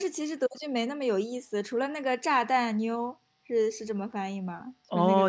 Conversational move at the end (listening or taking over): taking over